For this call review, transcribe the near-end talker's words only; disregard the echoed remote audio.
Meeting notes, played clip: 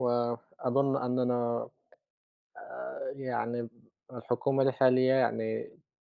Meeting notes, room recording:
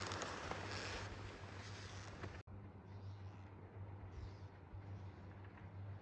none

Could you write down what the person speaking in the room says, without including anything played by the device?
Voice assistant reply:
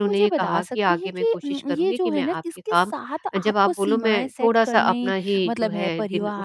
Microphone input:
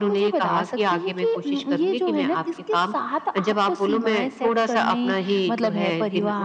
none

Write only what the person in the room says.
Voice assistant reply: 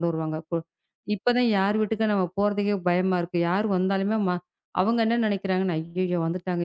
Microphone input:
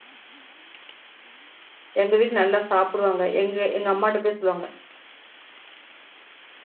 எங்க வீட்ல நல்லா சாப்பிடுவாங்க. எங்க எங்க அம்மாட்ட போய் சொல்லுவாங்க,

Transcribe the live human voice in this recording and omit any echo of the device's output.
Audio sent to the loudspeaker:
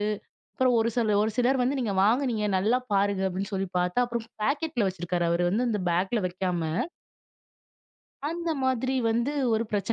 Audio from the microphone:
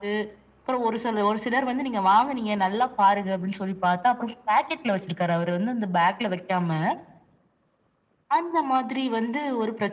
none

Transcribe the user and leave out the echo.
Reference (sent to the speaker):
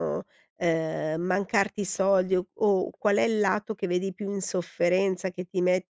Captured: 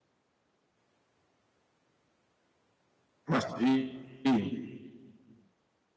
Ma sì, ti

